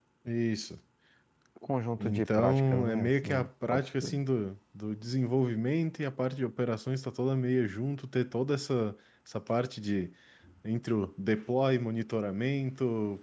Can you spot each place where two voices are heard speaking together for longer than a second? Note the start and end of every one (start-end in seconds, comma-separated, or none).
2.0-4.2